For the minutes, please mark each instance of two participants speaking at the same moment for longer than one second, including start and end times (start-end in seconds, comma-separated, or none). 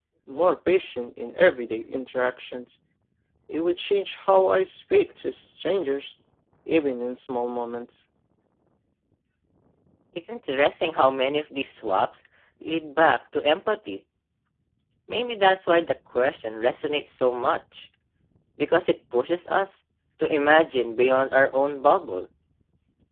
none